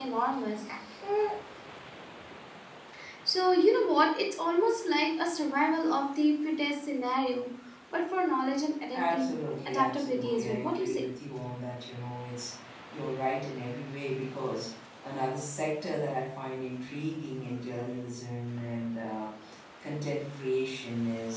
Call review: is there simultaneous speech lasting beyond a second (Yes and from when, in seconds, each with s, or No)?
Yes, from 8.9 s